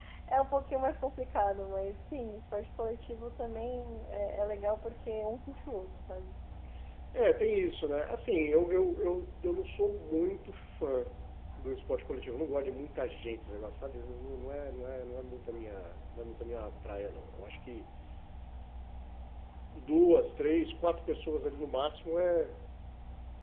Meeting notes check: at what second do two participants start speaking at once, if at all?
none

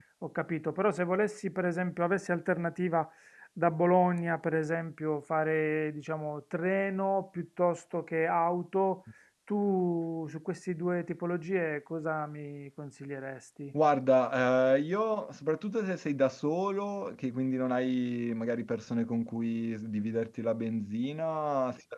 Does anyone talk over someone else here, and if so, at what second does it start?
none

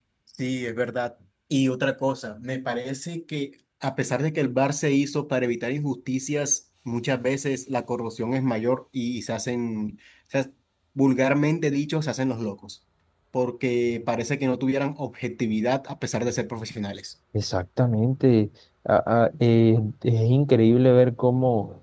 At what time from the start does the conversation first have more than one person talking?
none

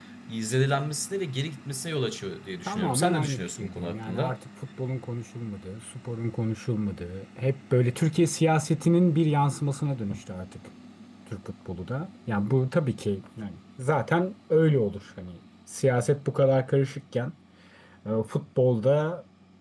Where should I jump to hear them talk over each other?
2.7 s

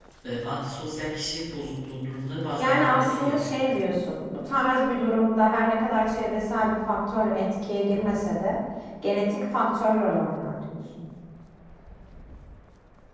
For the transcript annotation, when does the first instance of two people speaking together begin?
2.6 s

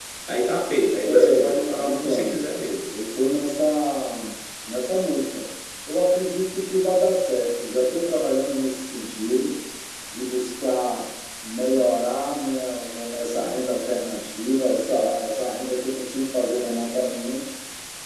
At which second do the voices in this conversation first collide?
1.0 s

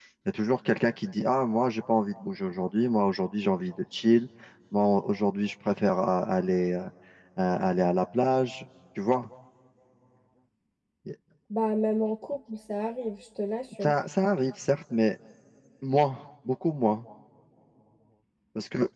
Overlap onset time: none

